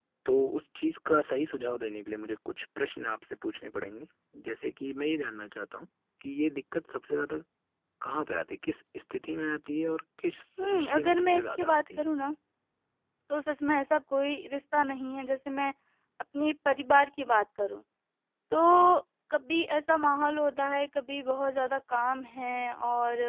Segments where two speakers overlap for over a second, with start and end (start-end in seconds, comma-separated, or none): 10.6-12.0